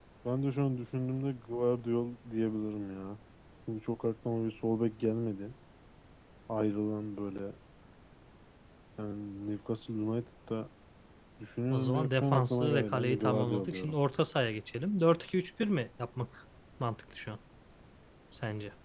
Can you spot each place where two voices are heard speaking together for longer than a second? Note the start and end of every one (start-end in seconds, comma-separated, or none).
11.7-13.9